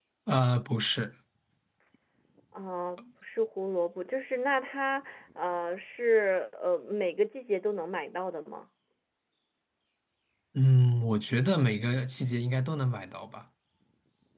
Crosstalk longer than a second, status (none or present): none